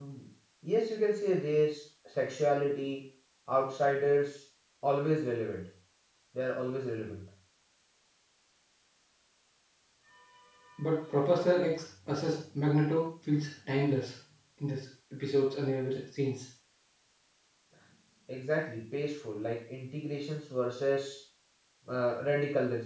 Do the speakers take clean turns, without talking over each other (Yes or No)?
Yes